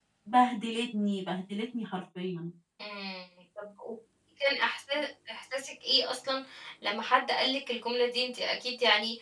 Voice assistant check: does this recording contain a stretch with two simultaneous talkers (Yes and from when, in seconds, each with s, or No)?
No